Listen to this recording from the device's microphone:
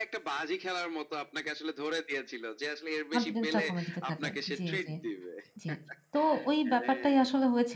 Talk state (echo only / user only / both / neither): both